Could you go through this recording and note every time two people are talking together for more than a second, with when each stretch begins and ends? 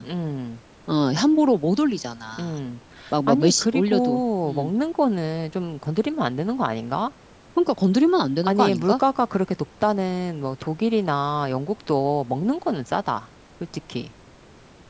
3.3-4.7

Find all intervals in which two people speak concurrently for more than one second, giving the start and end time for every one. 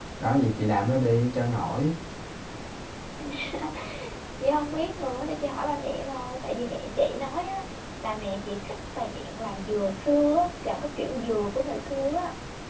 none

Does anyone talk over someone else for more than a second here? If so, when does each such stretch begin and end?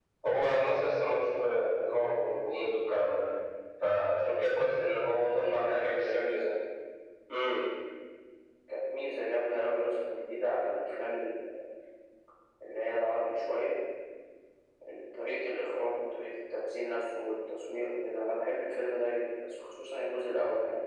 5.1-6.5

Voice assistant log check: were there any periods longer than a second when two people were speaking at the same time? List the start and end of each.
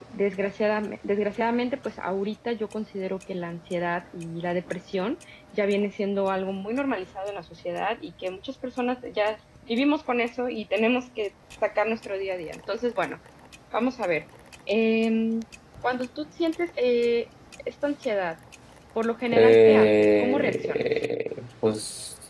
19.3-20.8

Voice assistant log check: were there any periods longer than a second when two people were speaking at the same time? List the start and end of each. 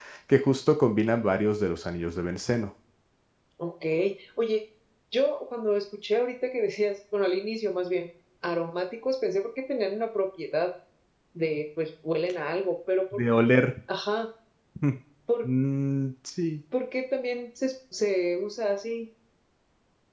none

